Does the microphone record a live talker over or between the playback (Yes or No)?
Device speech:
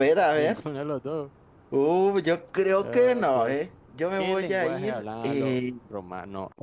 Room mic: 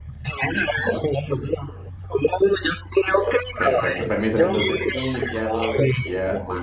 Yes